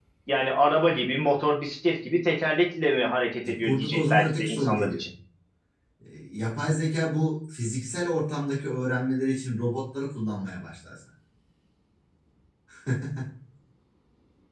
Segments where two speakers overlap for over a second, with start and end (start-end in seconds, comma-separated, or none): 3.5-5.0